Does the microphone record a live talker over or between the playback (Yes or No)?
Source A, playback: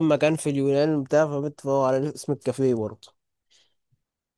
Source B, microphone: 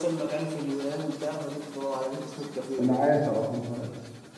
Yes